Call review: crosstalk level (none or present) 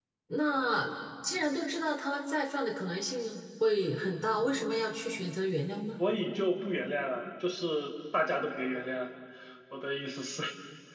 none